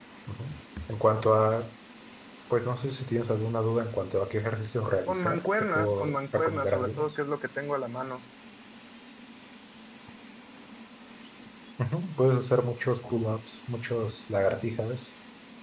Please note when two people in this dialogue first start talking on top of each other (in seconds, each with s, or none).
5.1 s